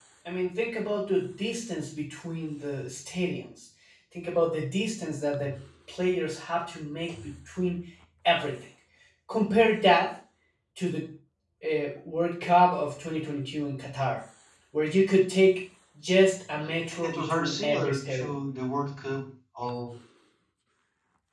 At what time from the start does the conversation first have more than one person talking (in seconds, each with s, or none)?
17.0 s